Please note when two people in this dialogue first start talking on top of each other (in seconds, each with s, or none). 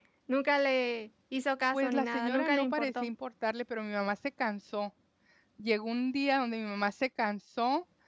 1.7 s